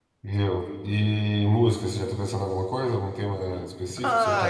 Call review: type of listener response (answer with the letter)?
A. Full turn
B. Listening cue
A